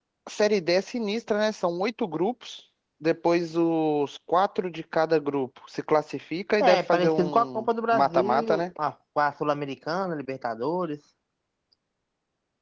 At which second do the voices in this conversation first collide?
7 s

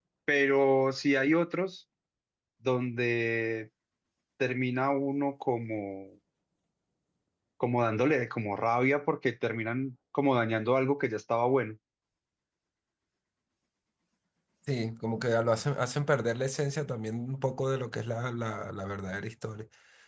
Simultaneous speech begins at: none

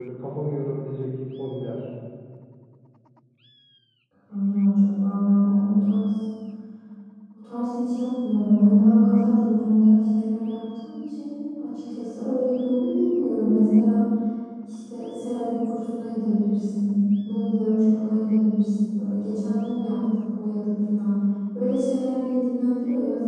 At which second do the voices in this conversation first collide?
none

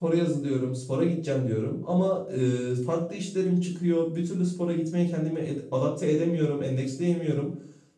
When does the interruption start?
none

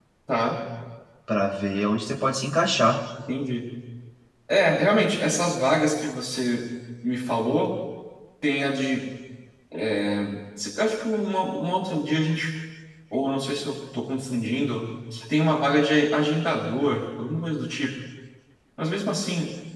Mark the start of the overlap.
none

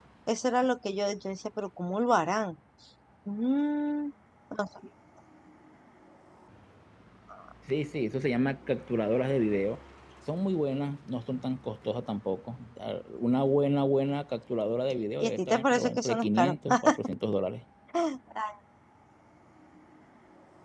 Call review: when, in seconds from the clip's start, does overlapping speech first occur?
15 s

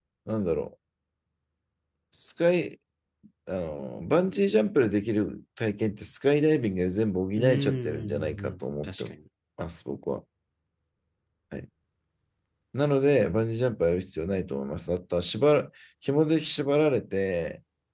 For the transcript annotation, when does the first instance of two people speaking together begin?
7 s

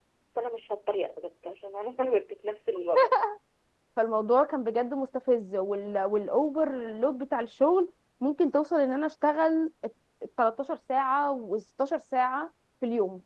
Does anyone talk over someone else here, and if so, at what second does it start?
none

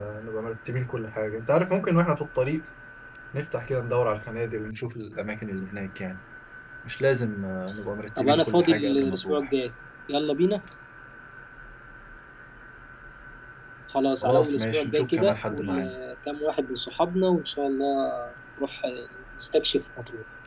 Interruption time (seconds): 8 s

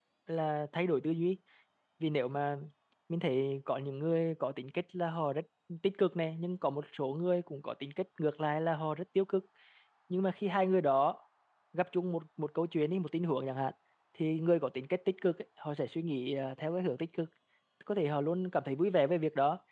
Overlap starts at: none

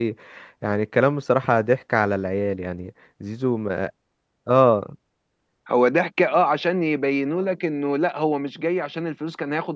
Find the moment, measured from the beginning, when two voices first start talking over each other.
none

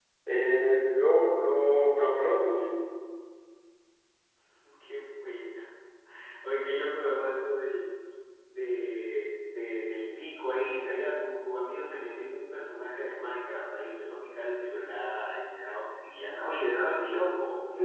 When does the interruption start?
none

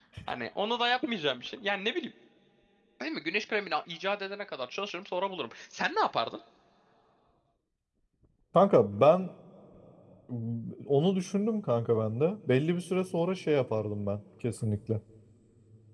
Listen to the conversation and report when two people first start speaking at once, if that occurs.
none

